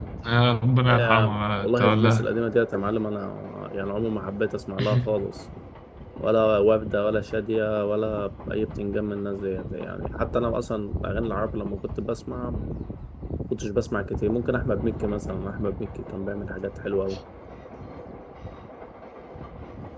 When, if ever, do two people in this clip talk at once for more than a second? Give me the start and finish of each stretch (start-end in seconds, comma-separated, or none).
0.9-2.3